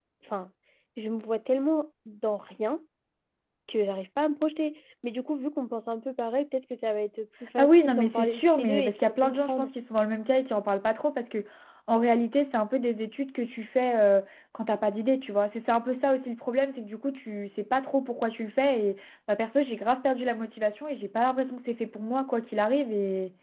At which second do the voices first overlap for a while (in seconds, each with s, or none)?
7.6 s